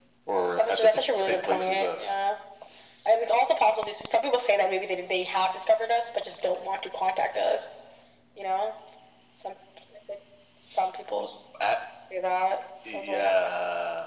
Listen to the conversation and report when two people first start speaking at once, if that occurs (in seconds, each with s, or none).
0.6 s